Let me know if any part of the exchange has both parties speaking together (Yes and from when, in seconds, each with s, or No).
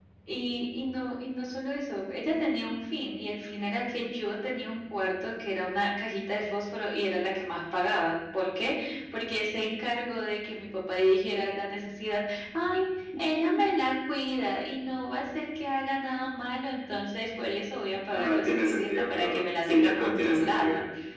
Yes, from 18.1 s